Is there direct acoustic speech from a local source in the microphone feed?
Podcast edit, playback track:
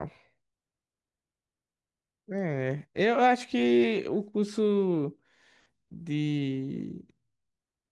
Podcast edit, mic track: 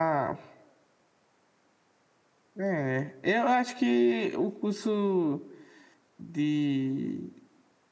No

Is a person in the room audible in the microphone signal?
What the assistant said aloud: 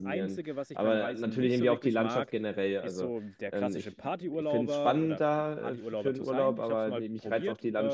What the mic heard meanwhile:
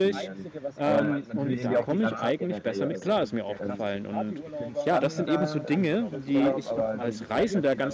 Yes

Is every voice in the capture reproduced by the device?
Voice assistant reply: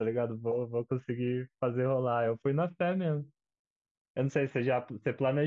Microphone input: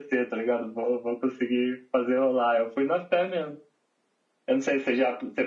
Yes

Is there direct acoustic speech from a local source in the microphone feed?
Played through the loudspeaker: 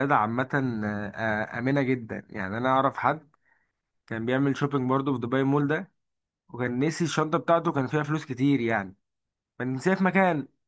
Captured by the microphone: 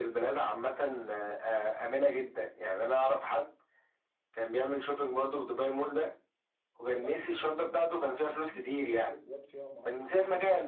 Yes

